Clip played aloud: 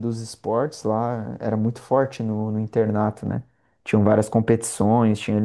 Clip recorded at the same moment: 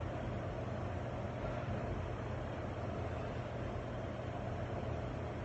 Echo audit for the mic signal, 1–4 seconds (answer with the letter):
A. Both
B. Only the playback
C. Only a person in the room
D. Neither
D